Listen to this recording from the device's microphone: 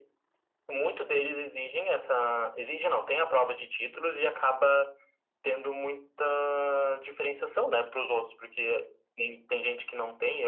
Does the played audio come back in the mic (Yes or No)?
Yes